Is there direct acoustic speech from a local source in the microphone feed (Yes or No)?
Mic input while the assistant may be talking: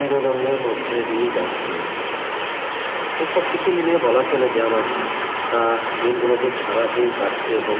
No